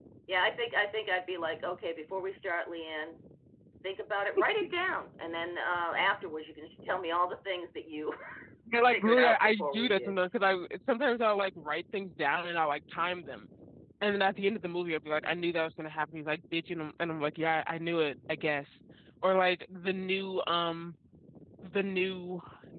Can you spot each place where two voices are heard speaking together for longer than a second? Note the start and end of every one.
8.9-10.2

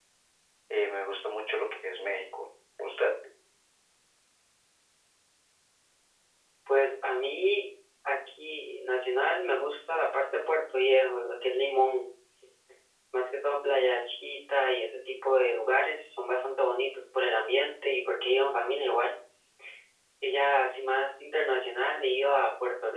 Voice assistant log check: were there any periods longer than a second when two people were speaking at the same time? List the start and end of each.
none

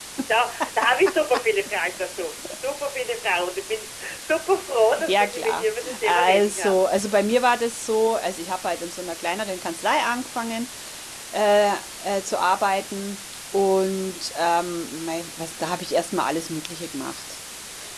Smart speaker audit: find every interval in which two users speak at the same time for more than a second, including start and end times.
5.0-6.8

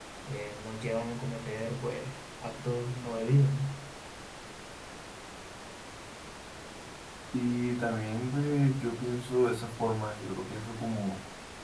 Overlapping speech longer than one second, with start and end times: none

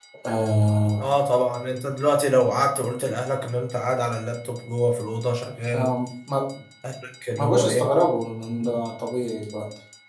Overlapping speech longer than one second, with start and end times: none

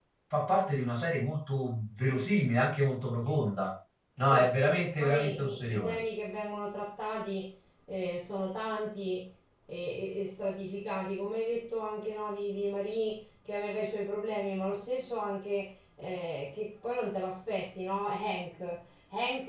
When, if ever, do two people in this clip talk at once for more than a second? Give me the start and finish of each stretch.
4.2-6.0

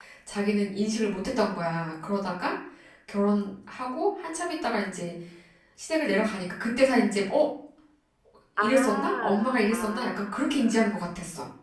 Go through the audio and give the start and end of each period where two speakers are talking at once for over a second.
8.6-10.4

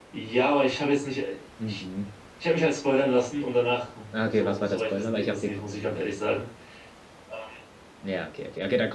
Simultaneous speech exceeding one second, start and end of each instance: 4.1-6.2

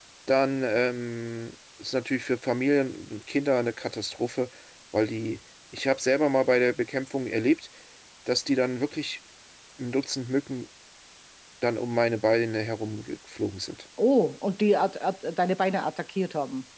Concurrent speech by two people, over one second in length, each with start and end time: none

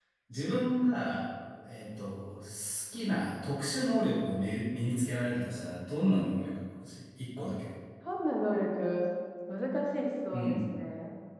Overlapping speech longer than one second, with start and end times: none

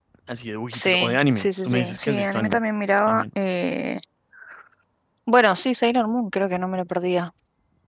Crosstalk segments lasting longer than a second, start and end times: 0.7-2.6

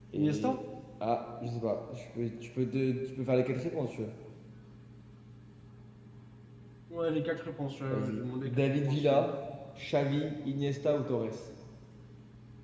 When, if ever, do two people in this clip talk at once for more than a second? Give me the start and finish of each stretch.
7.9-9.2

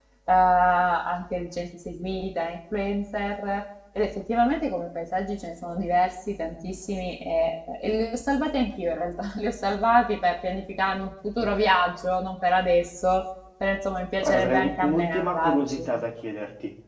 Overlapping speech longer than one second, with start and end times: 14.2-15.8

